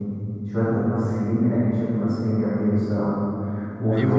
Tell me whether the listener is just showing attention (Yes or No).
Yes